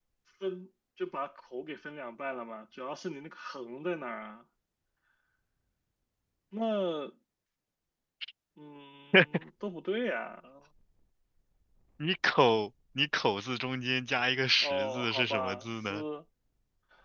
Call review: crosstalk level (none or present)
present